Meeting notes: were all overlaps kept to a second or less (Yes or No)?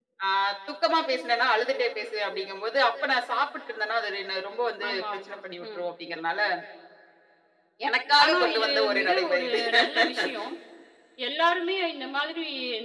No